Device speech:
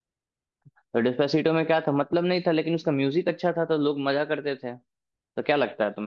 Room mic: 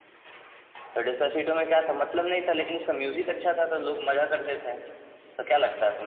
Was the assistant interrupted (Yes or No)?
No